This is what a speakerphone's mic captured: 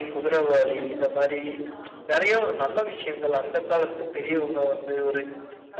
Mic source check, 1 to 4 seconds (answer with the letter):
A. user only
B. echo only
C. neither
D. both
D